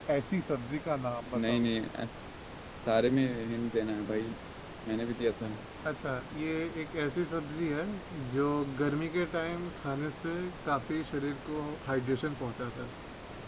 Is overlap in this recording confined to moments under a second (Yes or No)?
Yes